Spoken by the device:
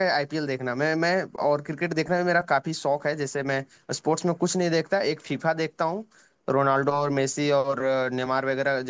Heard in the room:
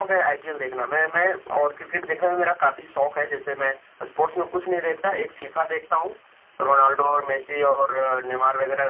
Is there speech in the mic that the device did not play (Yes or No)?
No